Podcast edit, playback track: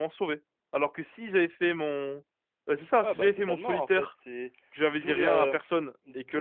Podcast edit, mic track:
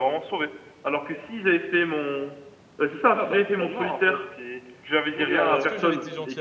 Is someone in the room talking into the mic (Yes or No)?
Yes